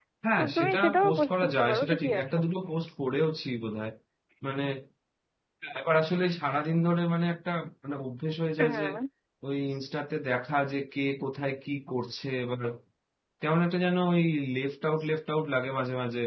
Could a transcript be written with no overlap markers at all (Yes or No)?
No